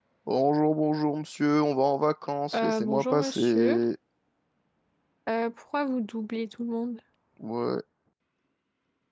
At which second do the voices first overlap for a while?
2.5 s

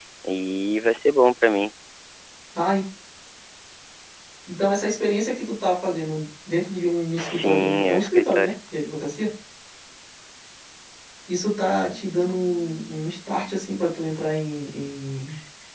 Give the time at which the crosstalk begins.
7.2 s

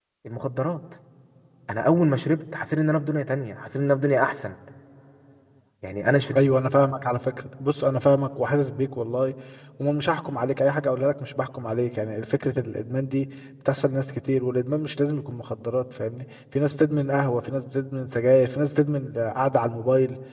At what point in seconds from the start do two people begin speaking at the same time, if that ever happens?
none

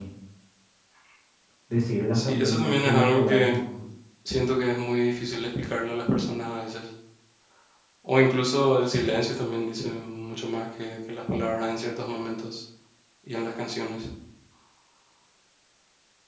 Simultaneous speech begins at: 2.1 s

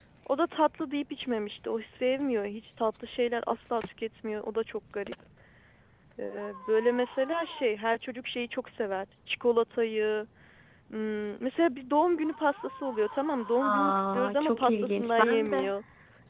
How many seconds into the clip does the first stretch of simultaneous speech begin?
13.6 s

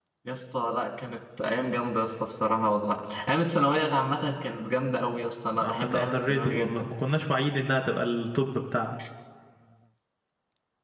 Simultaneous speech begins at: 5.6 s

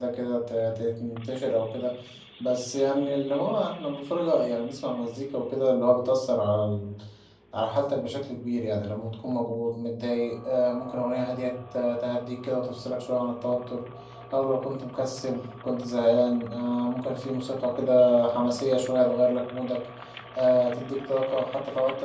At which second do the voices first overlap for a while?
none

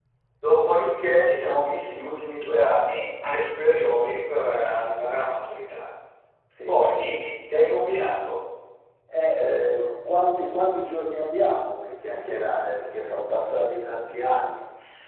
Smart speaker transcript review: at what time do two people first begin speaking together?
none

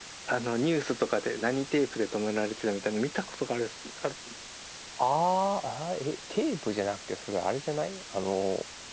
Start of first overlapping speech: none

